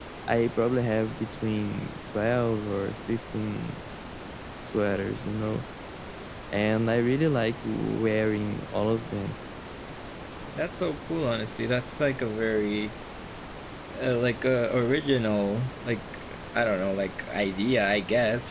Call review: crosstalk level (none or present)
none